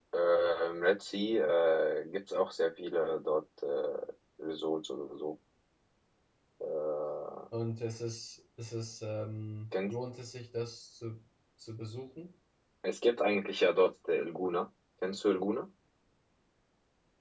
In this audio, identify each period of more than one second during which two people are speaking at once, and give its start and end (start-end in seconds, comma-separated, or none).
none